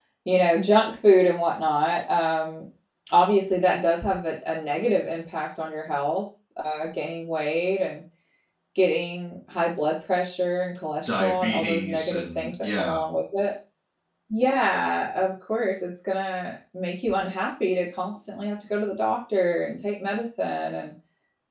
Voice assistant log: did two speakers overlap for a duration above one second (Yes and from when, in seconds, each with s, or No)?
Yes, from 11.1 s